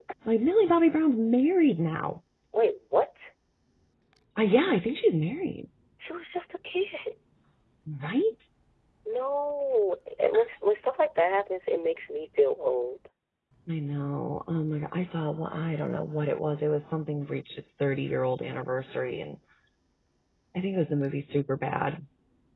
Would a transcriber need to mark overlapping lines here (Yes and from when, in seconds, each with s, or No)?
No